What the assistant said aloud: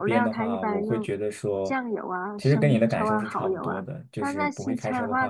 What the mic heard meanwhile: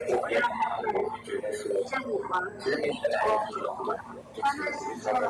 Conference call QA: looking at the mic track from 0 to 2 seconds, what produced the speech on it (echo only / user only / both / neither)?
echo only